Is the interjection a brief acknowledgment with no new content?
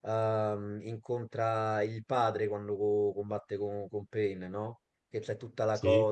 Yes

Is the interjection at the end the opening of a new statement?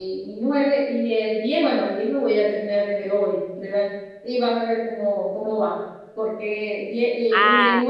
No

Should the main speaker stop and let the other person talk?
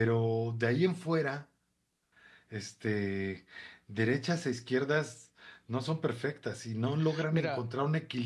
No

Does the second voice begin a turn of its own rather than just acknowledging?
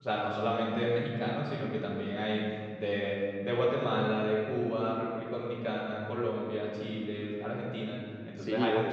No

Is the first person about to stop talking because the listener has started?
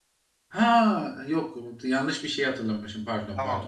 Yes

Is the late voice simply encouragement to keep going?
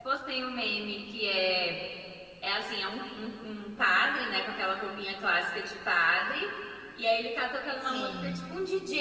Yes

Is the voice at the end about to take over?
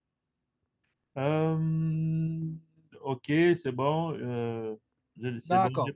Yes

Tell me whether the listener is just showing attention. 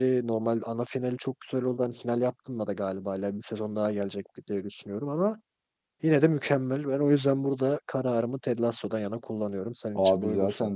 No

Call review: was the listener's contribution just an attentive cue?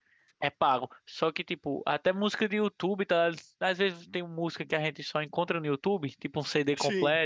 Yes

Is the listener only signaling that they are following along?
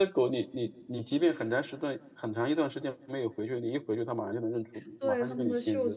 No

